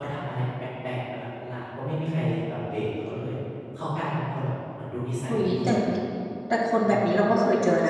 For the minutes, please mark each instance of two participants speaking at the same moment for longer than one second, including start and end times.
none

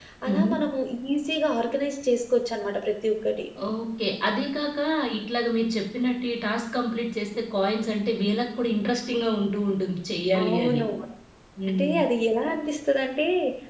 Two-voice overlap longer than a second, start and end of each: none

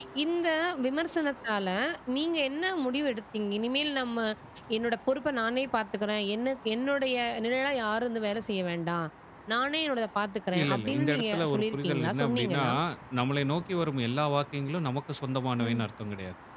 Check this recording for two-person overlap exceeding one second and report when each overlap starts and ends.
10.6-12.6

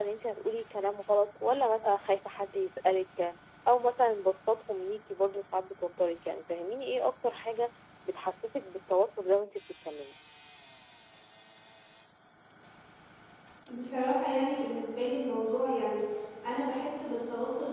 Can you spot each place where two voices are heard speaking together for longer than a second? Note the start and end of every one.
none

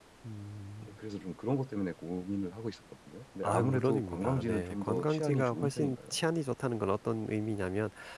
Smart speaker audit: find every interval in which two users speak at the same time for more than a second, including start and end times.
3.4-6.0

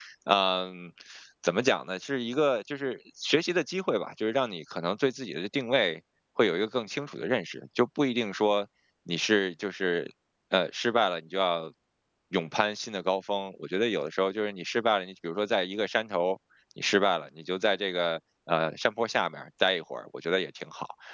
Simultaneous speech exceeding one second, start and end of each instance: none

